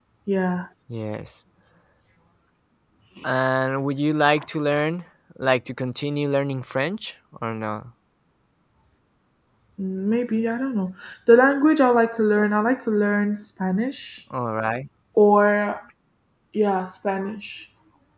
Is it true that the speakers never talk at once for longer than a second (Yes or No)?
Yes